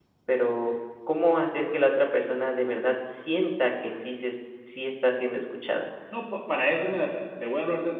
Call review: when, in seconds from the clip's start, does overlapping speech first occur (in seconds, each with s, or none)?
none